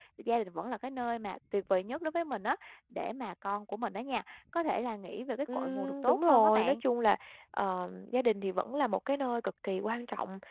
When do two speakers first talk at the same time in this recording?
5.5 s

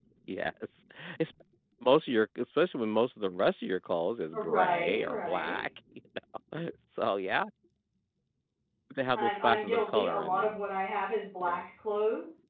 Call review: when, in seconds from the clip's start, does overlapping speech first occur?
4.4 s

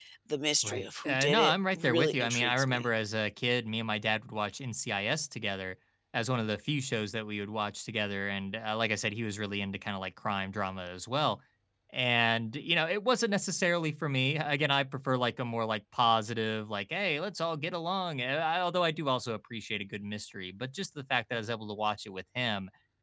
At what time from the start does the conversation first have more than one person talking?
0.6 s

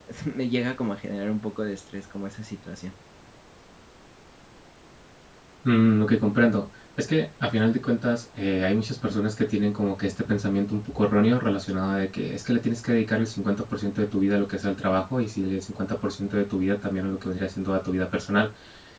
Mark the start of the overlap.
none

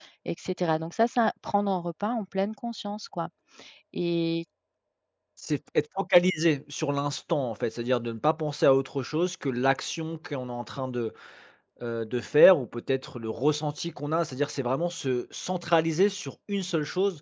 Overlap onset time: none

